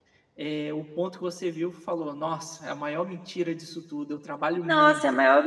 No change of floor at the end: No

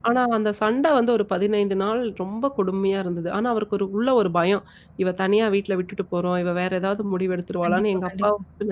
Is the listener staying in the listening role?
Yes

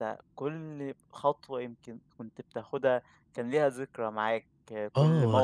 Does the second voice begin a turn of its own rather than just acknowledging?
Yes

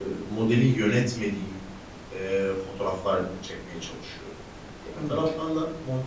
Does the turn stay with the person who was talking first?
Yes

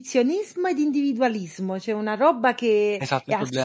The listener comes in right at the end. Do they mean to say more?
Yes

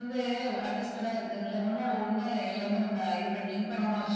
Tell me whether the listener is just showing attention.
Yes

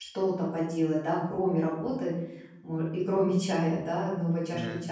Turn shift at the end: No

